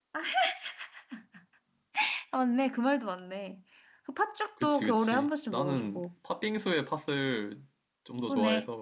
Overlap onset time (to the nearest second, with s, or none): 5 s